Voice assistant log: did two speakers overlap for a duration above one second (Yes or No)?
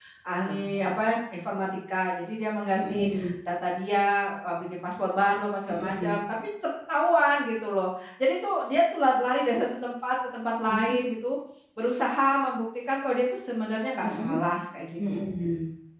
No